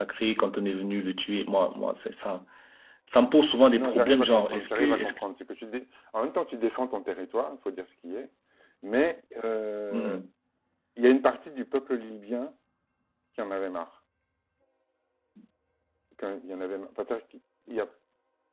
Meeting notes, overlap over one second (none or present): present